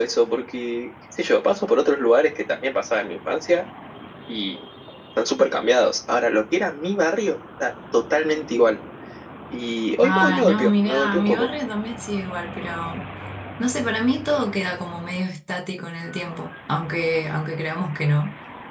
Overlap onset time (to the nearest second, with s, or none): 10 s